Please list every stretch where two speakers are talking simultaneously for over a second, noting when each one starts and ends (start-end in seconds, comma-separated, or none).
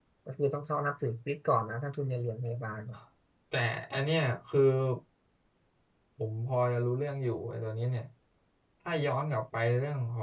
none